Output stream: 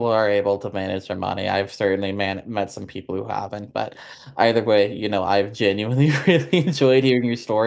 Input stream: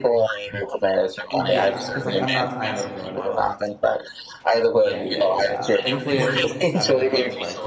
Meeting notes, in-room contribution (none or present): present